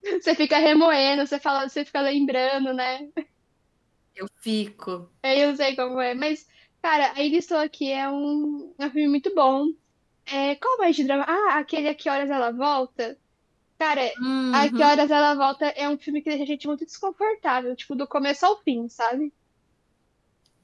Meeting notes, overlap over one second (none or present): none